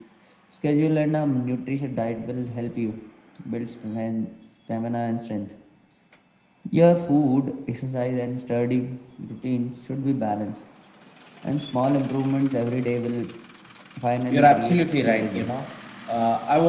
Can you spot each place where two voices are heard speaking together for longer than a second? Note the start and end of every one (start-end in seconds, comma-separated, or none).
14.3-15.5